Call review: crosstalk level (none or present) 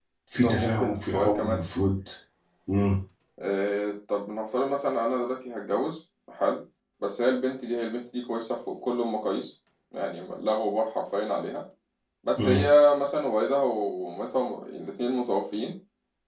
present